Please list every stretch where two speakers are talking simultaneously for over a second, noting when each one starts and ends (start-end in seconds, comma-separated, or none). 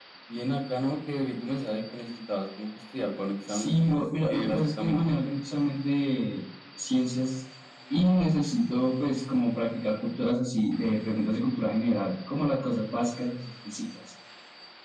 3.5-5.2